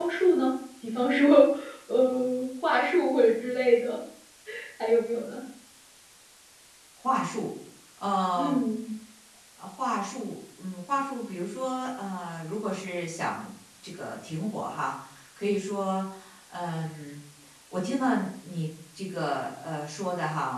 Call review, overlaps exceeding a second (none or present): none